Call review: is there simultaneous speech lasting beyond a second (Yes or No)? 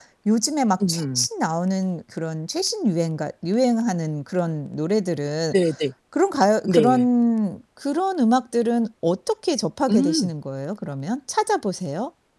No